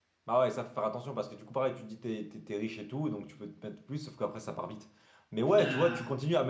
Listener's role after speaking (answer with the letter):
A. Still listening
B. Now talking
A